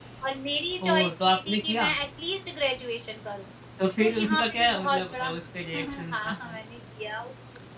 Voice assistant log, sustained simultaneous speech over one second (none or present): present